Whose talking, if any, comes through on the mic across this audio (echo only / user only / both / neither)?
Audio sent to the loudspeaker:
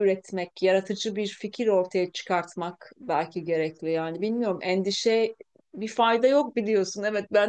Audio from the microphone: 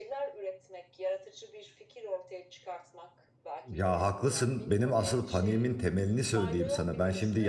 both